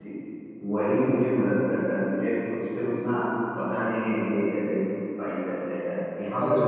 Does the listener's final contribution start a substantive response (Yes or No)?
Yes